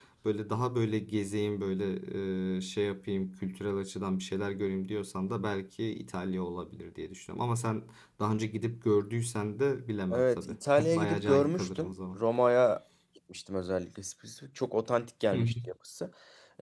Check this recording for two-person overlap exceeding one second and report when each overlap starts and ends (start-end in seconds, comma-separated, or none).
10.1-12.2